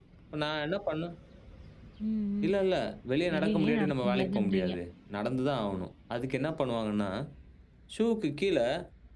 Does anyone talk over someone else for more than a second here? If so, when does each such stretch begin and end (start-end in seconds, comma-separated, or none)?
3.3-4.7